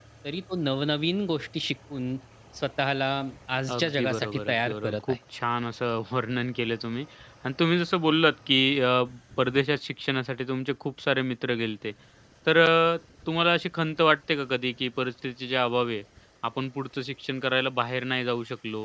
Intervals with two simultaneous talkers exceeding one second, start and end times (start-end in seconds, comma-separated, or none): 3.8-5.2